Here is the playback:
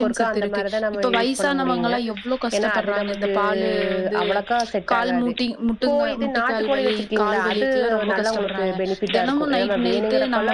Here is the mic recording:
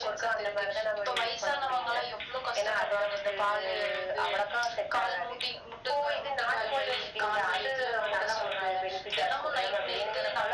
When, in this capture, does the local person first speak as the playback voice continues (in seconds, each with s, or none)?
none